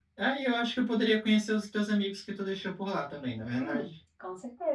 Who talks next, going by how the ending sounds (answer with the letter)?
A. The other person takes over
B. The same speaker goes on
A